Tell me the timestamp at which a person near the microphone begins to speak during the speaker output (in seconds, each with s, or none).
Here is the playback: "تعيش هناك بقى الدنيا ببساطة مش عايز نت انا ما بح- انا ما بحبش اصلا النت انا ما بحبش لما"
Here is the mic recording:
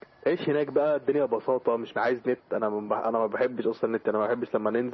none